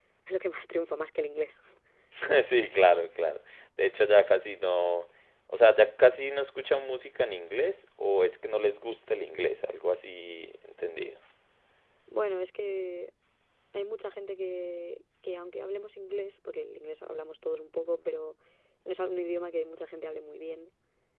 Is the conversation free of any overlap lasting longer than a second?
Yes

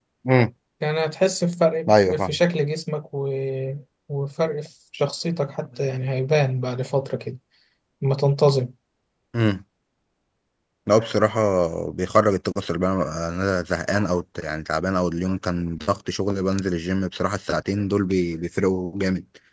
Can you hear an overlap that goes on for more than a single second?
No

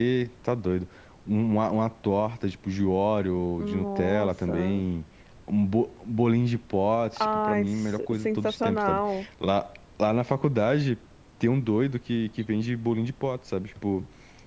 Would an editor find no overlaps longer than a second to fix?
No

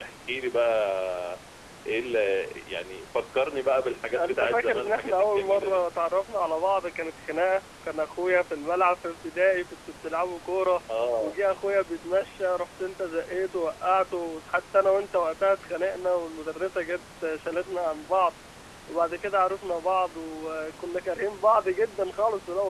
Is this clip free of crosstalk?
No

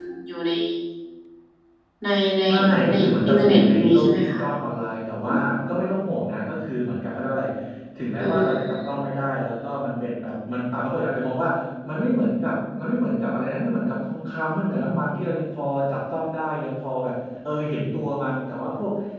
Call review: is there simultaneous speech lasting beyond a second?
Yes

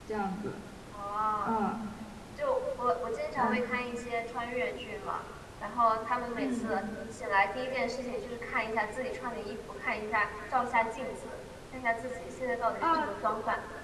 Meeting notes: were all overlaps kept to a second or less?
Yes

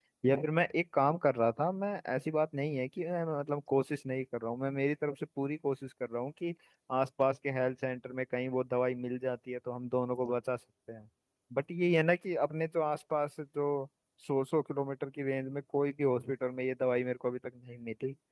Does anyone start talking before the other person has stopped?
No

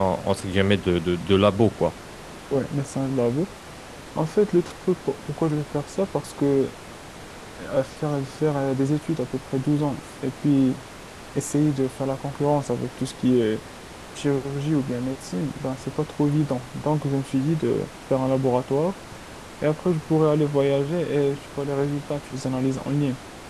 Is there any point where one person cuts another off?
No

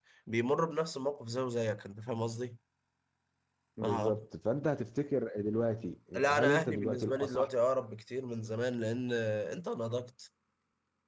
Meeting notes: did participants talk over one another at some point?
Yes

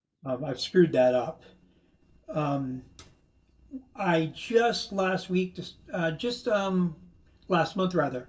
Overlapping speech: No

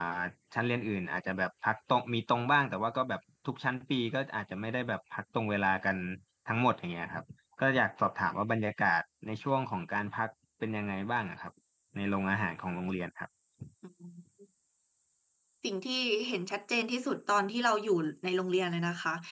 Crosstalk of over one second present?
No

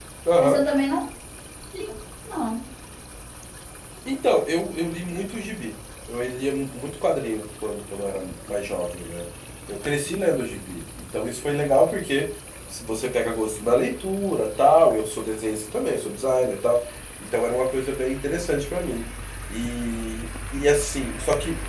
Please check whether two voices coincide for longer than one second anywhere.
No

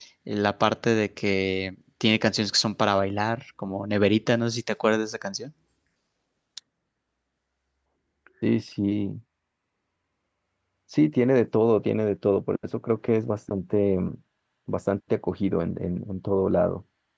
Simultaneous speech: No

